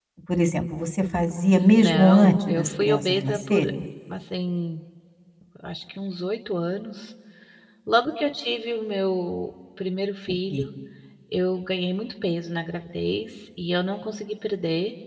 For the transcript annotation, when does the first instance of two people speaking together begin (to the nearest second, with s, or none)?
2 s